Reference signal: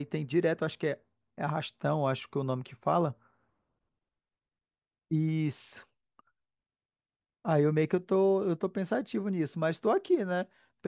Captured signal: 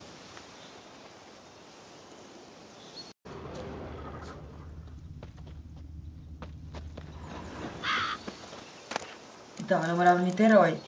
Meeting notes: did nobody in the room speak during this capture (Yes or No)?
No